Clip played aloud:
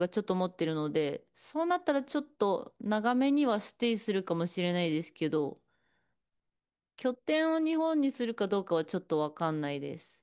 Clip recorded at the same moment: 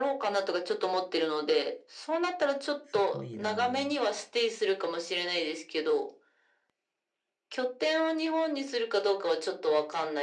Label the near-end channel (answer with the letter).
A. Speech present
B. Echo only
A